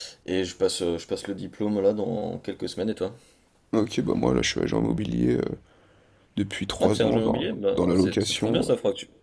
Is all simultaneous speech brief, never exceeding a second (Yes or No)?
No